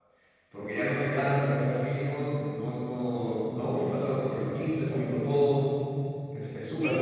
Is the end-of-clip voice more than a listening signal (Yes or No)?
Yes